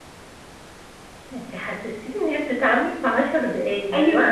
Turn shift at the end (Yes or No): Yes